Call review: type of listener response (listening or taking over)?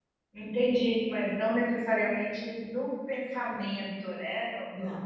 taking over